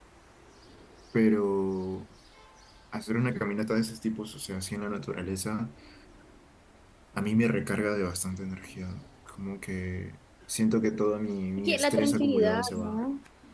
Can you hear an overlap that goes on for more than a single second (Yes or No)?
Yes